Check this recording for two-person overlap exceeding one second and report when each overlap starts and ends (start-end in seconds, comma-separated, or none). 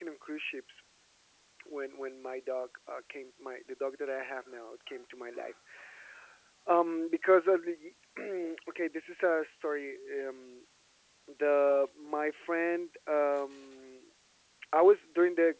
none